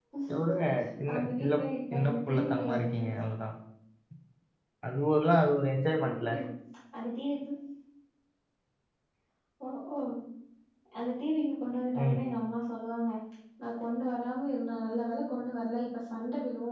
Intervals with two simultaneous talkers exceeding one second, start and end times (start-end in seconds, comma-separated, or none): 1.9-3.1